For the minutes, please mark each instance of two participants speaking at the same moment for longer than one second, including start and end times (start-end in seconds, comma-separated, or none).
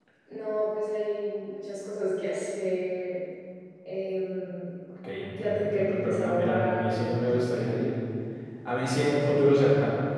5.4-7.4